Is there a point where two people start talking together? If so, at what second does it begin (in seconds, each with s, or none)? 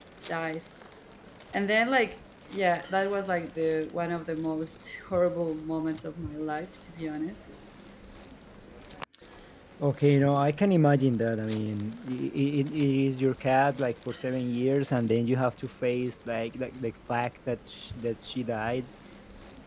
none